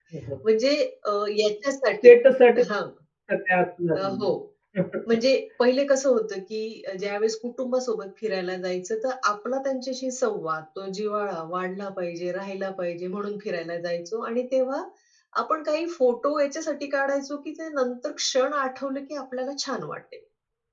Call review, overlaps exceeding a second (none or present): none